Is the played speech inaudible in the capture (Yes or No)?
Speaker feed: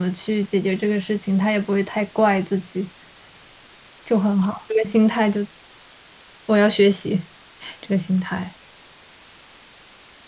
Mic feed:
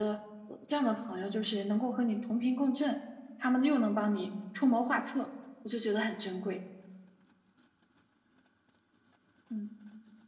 Yes